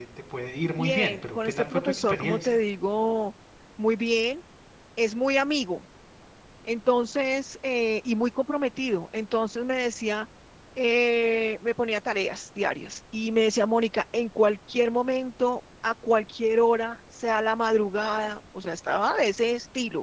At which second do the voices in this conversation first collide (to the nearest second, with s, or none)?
1 s